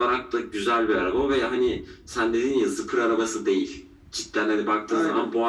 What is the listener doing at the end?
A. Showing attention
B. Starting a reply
A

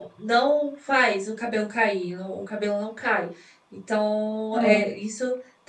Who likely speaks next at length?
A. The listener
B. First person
B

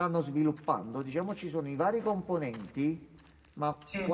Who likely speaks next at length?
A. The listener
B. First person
B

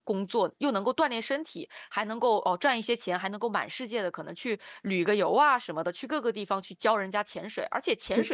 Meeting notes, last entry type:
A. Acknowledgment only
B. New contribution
A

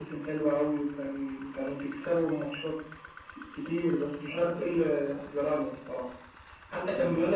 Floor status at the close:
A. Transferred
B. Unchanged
B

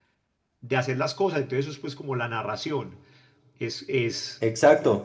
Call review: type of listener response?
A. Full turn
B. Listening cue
A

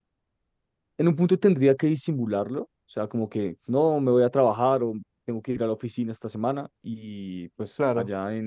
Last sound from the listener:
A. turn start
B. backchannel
B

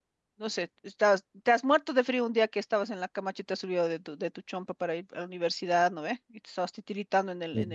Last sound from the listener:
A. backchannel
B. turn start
A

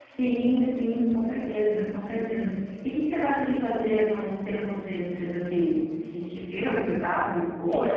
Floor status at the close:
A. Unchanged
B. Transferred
B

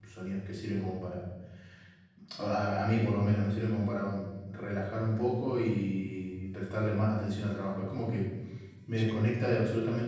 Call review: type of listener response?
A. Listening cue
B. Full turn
A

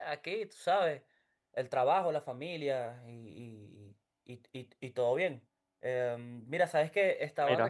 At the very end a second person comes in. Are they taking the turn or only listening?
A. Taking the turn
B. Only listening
B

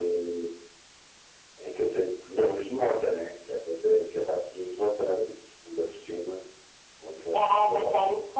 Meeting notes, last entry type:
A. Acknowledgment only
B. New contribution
B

